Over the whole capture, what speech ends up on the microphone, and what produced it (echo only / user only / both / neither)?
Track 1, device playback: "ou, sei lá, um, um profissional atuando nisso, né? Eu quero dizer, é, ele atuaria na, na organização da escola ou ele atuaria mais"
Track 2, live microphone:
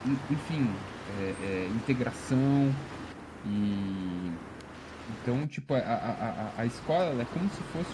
user only